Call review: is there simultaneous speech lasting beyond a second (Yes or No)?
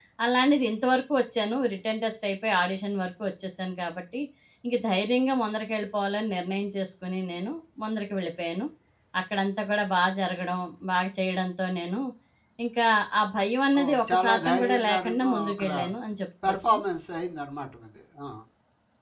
Yes